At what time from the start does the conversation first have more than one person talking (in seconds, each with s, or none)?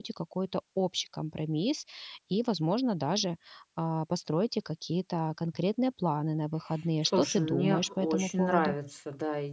7.0 s